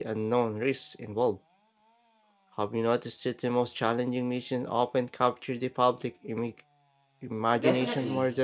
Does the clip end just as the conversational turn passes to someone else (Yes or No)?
Yes